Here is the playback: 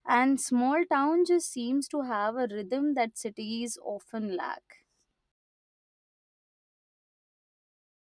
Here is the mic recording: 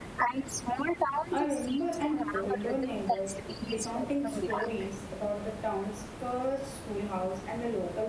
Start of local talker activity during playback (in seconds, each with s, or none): 1.3 s